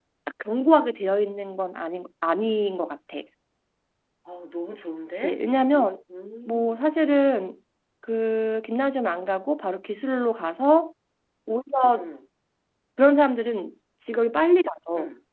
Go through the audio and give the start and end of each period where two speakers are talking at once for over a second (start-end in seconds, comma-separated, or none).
none